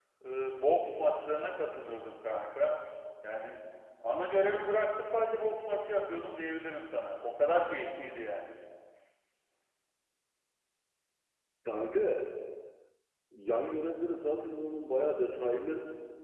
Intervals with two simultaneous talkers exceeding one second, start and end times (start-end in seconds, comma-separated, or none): none